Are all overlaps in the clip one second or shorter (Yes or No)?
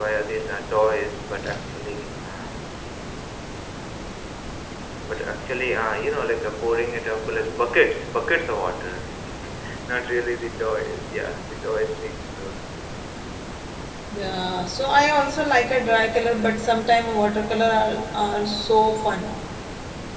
Yes